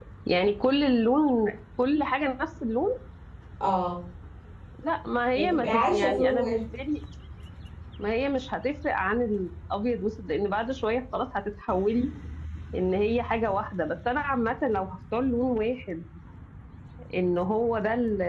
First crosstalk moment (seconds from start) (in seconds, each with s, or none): 5.3 s